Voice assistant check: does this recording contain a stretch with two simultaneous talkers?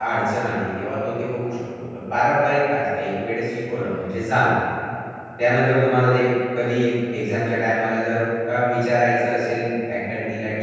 No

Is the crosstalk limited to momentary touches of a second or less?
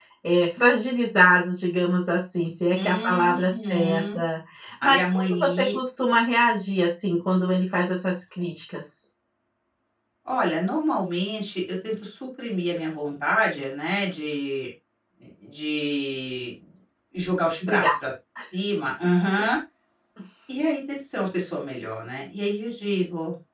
No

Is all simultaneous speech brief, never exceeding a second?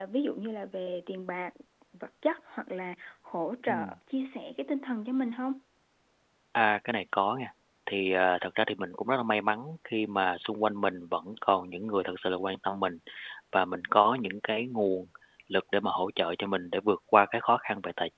Yes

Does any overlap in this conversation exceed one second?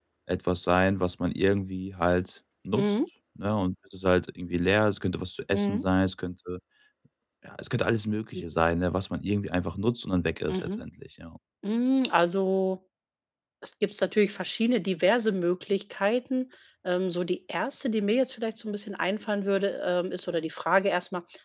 No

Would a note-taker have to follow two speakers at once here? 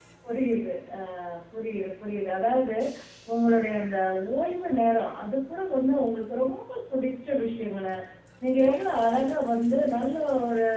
No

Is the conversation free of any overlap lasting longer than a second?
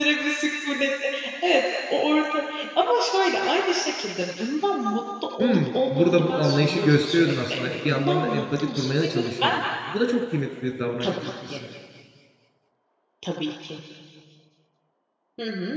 No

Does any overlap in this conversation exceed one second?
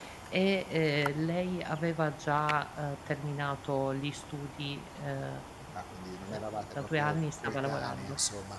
Yes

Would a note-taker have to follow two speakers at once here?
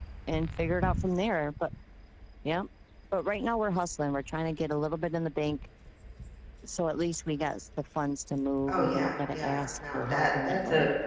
Yes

